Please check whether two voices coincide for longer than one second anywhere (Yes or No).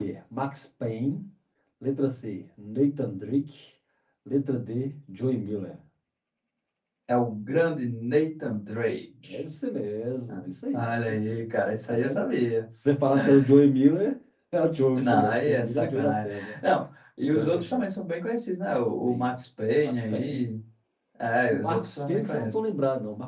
Yes